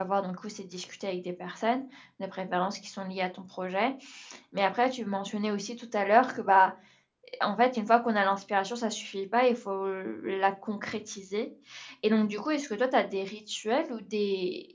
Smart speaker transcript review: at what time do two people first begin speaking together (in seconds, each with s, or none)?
none